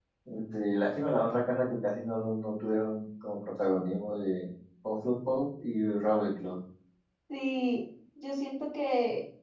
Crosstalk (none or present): none